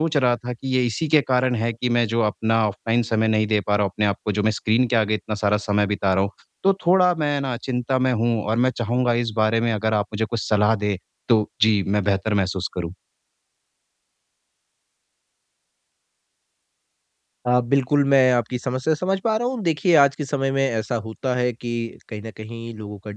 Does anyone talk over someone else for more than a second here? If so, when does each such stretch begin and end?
none

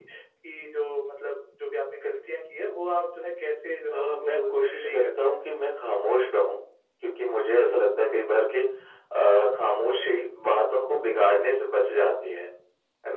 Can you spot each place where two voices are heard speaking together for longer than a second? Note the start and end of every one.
3.9-5.3

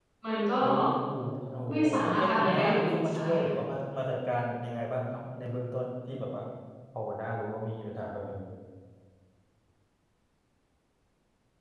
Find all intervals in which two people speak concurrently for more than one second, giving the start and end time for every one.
1.7-3.5

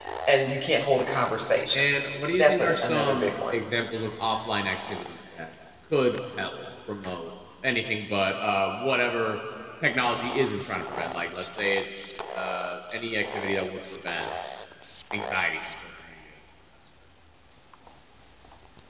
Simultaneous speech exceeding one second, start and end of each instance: 2.3-3.5

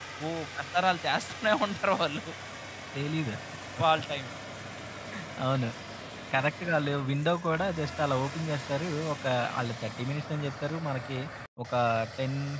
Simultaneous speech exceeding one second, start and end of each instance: none

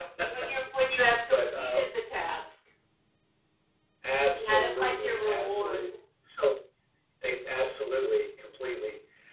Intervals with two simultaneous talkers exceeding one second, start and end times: 4.3-5.8

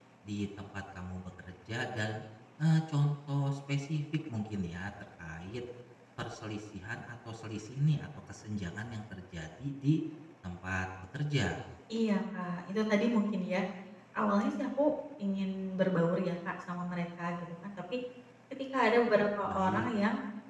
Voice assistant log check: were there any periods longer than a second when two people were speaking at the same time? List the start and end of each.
none

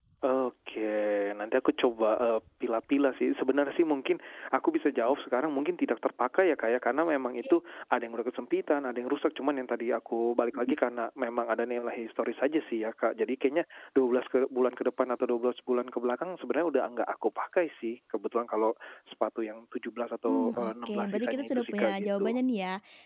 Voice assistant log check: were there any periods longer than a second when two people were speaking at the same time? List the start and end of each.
20.3-22.3

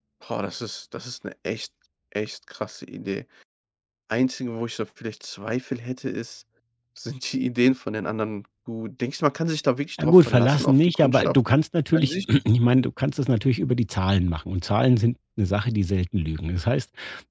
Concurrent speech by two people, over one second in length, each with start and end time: 10.0-11.4

